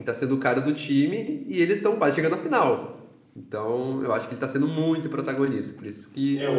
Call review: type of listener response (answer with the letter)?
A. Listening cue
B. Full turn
A